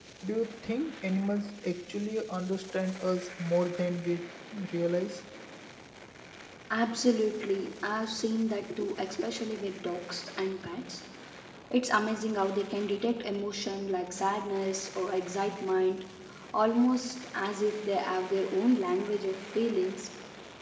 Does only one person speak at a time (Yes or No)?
Yes